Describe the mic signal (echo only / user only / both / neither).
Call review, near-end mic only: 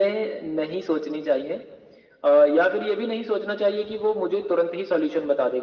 echo only